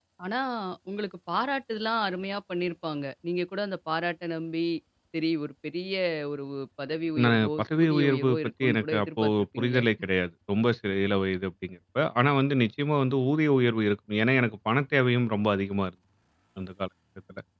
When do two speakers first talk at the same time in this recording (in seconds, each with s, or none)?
7.2 s